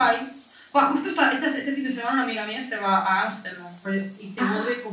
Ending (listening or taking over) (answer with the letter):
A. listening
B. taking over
A